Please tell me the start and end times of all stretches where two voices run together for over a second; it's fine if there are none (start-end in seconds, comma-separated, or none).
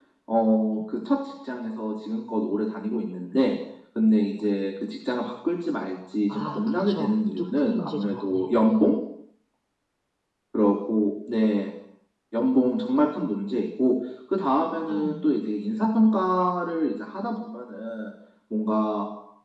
6.3-8.5